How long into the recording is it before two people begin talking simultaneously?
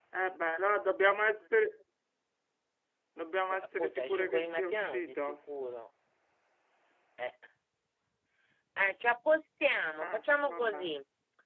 3.5 s

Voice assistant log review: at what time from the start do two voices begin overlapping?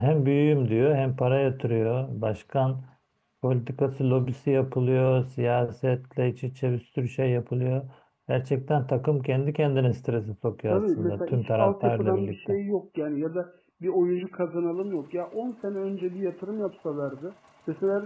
10.7 s

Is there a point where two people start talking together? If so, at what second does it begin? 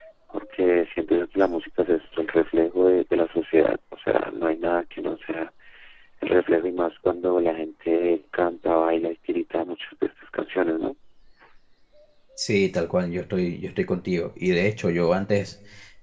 none

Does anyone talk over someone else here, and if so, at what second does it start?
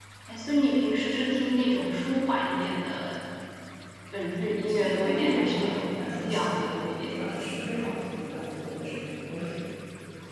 4.7 s

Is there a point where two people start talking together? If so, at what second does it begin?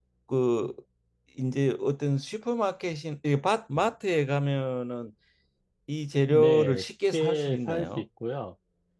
6.3 s

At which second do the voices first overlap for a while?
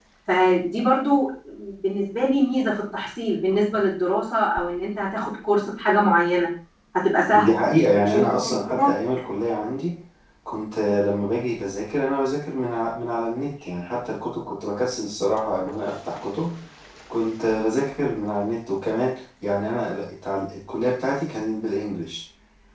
7.3 s

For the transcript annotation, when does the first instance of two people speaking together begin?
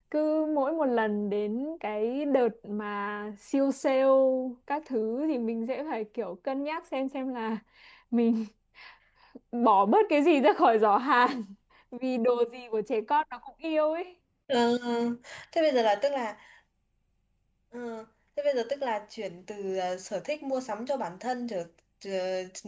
none

